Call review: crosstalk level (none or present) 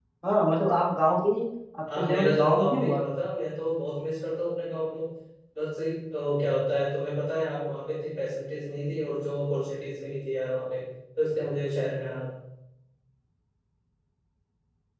present